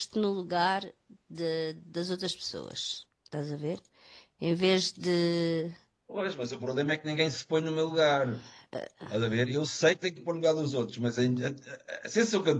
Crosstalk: none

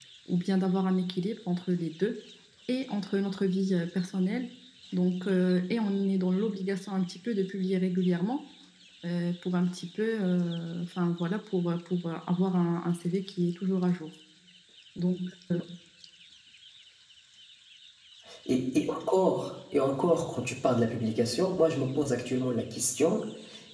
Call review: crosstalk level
none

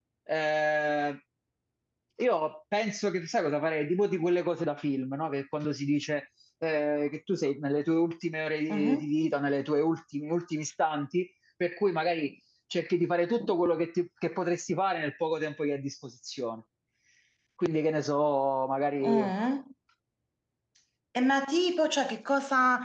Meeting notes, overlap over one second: none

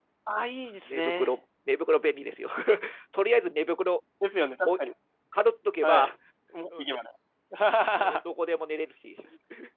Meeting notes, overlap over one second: none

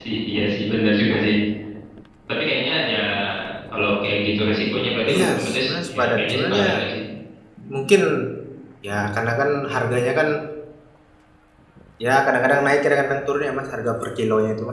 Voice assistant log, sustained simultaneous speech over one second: present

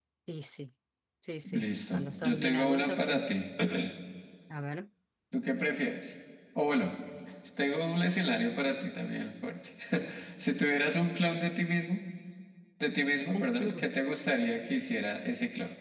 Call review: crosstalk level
present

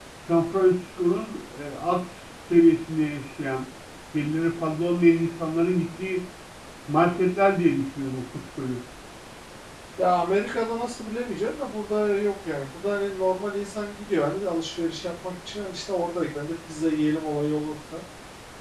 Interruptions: none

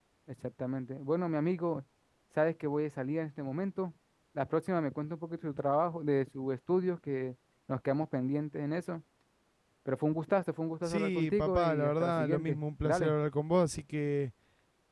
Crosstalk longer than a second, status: present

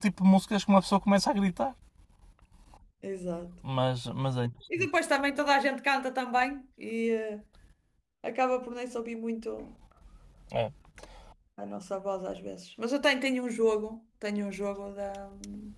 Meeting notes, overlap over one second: none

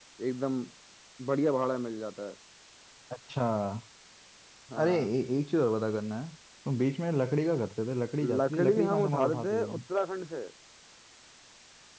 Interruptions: present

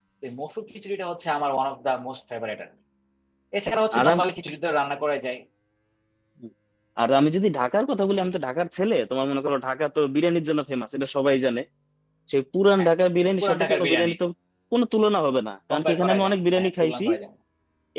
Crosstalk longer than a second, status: present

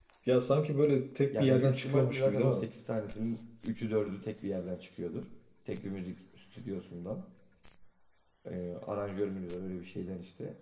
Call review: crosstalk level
present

